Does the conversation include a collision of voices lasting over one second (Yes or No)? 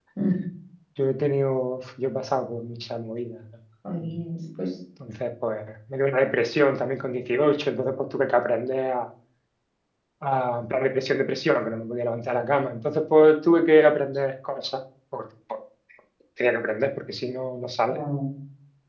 No